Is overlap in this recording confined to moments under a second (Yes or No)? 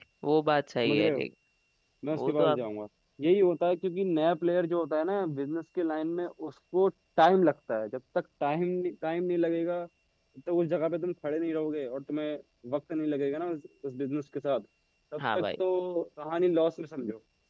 Yes